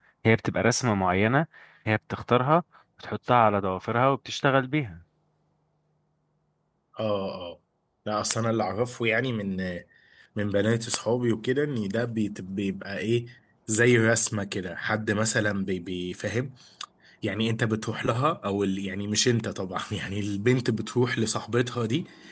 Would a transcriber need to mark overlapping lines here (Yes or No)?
No